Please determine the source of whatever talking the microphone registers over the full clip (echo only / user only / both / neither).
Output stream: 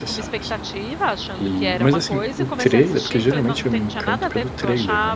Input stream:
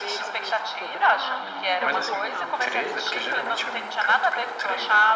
both